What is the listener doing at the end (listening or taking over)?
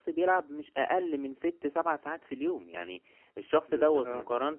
listening